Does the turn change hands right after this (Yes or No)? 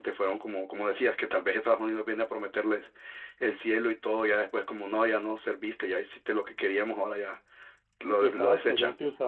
Yes